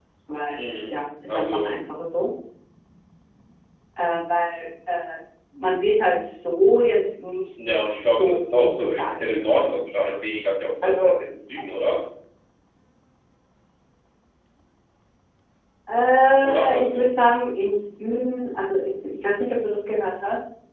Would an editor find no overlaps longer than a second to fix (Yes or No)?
No